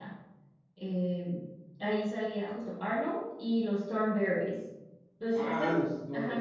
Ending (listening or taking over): taking over